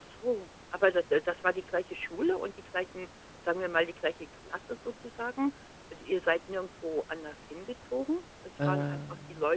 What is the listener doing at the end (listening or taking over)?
listening